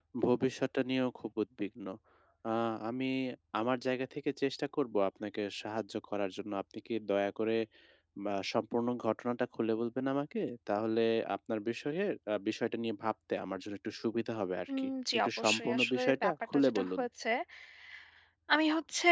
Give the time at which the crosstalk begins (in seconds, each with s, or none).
14.7 s